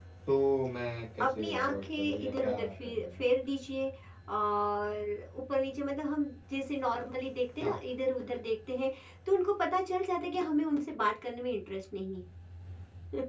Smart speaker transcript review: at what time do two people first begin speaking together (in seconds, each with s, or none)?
1.2 s